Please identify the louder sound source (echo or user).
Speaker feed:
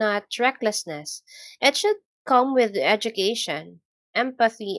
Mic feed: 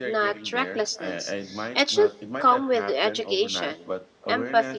echo